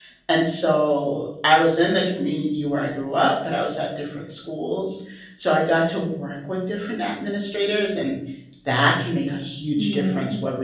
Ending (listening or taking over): listening